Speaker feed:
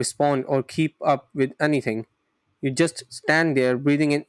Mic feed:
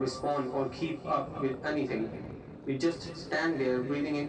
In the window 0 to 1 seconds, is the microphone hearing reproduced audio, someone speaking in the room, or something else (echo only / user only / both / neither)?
echo only